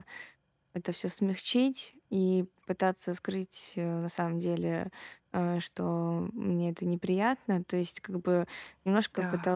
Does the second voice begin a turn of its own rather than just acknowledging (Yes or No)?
No